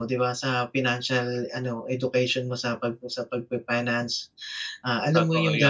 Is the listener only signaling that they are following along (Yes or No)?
Yes